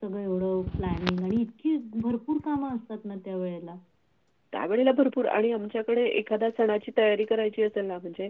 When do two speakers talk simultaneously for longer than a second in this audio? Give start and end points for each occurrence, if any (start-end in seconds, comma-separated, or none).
none